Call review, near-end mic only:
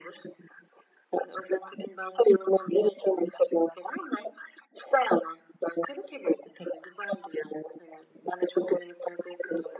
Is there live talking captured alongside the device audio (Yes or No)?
No